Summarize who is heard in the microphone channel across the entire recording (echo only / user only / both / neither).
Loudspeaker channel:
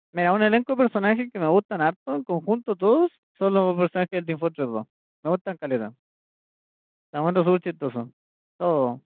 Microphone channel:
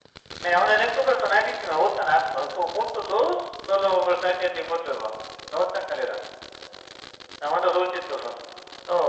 echo only